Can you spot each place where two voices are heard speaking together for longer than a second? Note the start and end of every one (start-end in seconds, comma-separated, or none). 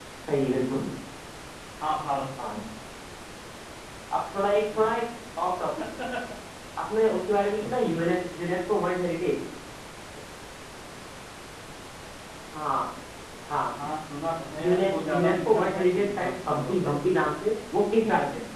14.6-16.9